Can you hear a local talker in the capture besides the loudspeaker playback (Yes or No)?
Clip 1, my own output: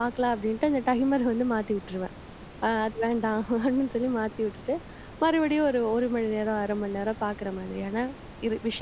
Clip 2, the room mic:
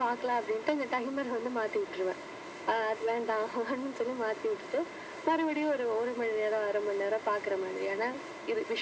No